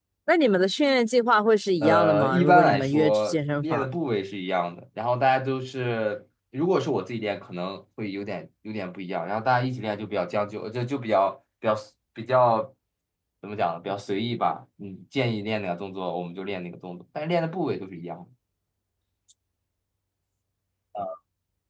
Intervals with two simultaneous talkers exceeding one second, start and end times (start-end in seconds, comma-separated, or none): 1.8-3.9